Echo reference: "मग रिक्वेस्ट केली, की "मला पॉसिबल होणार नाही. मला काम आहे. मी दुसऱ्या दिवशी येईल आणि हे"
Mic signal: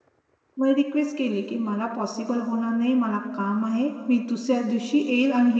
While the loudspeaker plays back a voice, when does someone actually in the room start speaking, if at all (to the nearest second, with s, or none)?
none